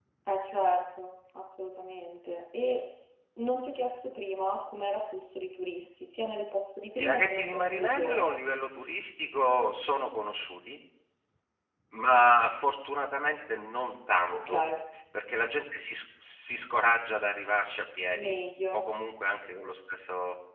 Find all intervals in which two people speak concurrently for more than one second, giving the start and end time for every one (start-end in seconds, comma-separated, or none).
7.0-8.3